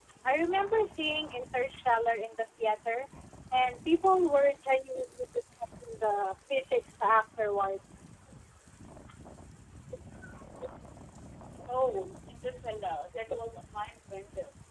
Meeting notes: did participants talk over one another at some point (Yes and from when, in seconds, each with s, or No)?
No